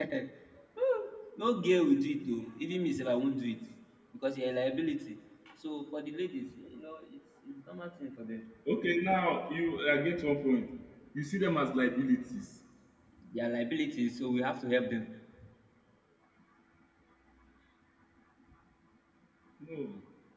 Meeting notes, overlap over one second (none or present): none